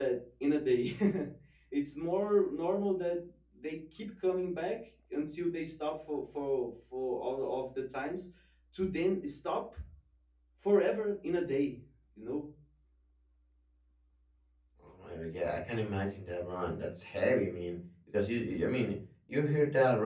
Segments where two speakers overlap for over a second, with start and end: none

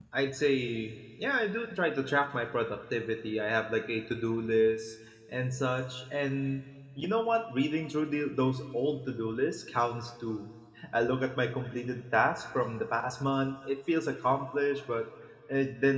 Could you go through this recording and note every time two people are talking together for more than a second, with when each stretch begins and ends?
none

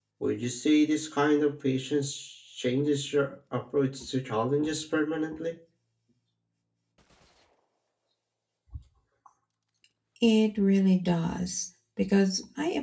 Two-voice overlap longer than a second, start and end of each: none

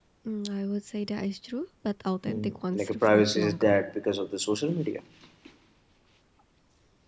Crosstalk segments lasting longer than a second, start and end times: 2.3-3.8

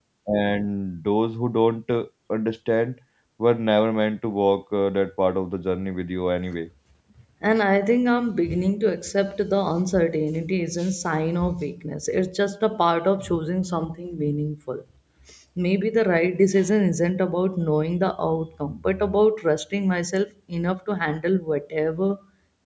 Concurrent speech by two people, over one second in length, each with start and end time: none

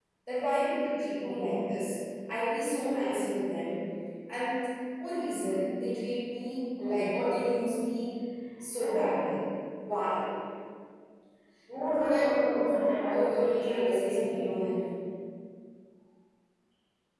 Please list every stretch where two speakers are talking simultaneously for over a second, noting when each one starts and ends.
12.7-14.6

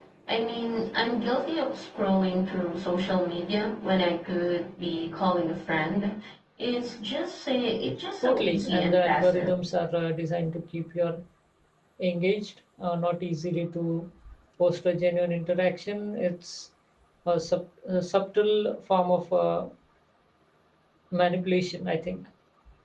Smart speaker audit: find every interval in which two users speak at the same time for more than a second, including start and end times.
8.2-9.6

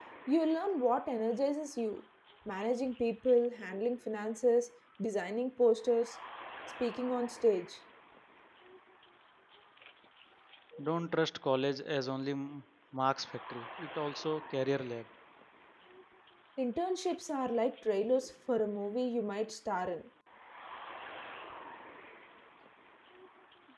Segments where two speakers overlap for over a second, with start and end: none

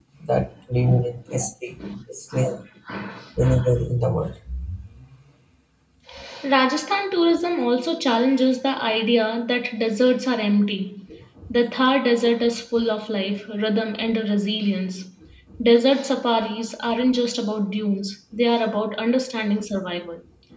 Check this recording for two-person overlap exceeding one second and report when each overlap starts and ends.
none

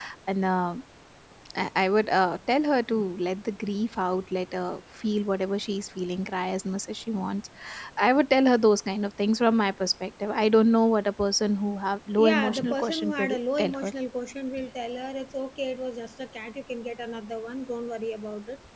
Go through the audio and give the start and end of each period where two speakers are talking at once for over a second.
12.2-13.9

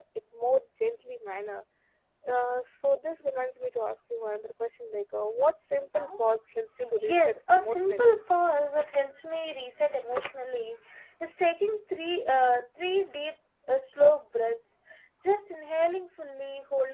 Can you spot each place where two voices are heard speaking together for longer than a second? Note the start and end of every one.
6.8-8.1

